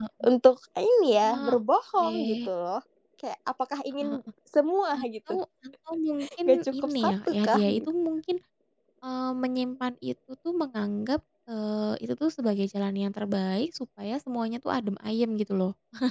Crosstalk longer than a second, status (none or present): present